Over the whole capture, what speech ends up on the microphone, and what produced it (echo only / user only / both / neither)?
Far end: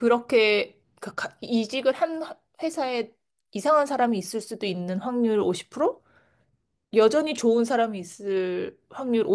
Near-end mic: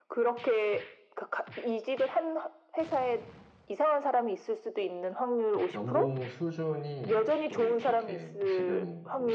both